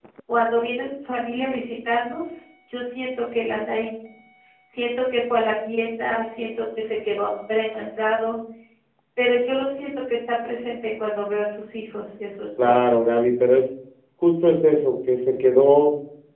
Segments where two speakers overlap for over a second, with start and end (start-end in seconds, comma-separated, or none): none